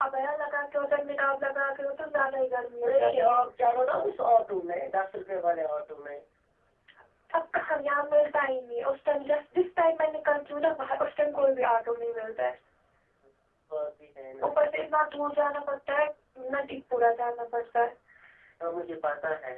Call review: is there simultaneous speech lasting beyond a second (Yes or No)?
No